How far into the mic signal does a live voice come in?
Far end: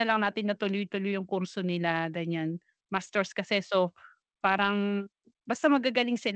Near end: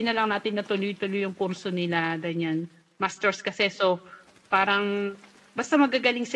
none

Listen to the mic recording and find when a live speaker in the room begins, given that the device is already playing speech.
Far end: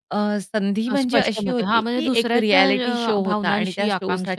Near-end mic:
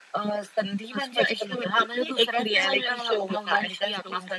none

